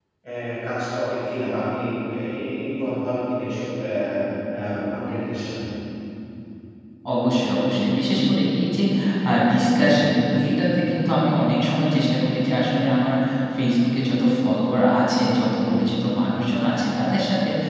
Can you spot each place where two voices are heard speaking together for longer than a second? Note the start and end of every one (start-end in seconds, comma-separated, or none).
none